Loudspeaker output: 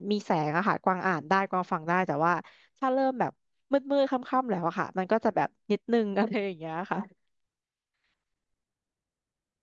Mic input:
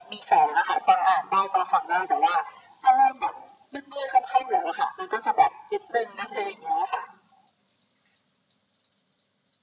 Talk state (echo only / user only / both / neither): echo only